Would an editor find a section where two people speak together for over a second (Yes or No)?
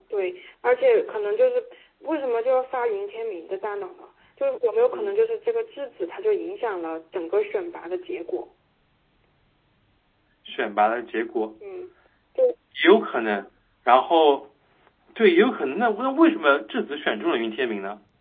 No